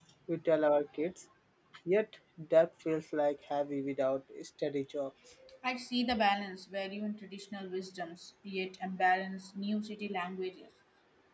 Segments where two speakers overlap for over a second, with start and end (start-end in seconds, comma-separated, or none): none